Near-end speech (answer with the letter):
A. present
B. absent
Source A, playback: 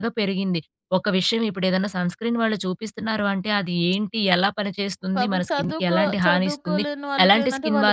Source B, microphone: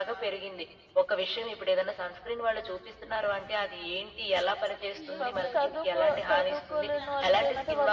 A